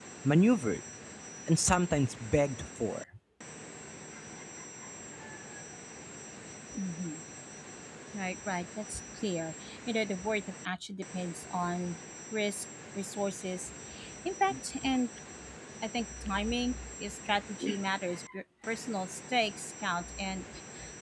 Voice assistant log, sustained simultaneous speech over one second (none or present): none